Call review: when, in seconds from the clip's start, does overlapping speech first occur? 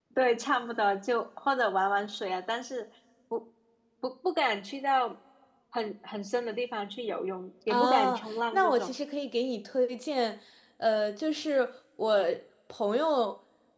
7.7 s

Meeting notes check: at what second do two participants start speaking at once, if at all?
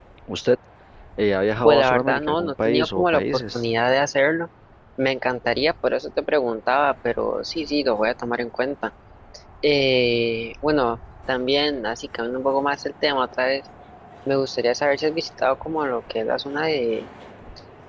1.6 s

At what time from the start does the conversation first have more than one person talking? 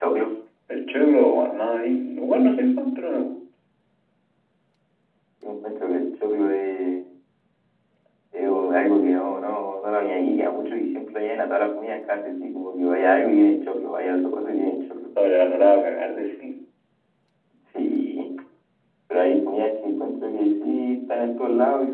none

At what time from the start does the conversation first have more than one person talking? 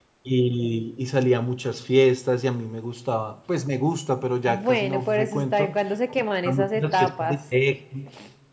4.5 s

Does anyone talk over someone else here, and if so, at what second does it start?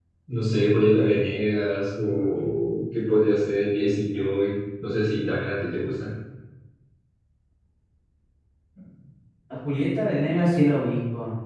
none

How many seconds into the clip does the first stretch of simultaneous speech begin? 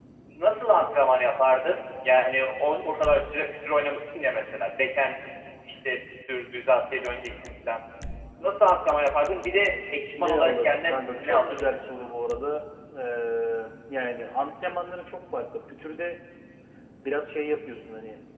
10.2 s

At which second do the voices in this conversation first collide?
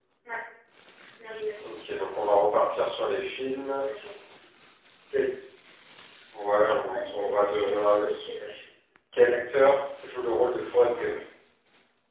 6.6 s

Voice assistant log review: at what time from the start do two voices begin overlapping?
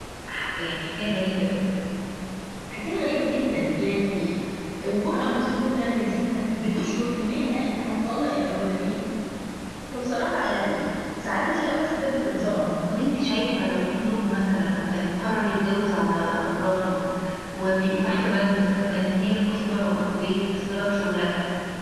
none

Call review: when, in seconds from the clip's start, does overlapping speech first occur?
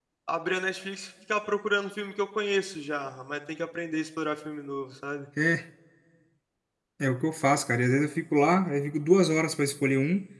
none

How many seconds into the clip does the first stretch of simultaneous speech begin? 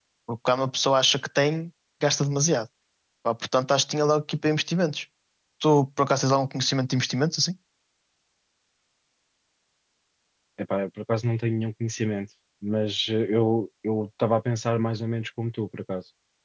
none

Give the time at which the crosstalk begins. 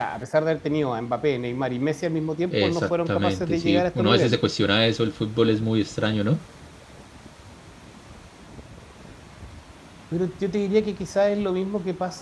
2.5 s

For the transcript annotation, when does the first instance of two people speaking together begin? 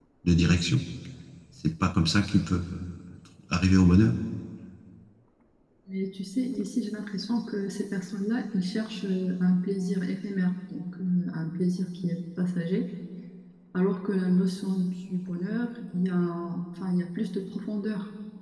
none

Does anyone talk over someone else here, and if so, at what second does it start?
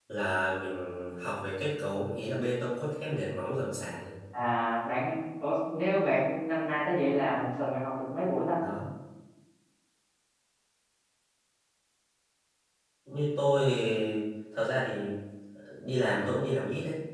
none

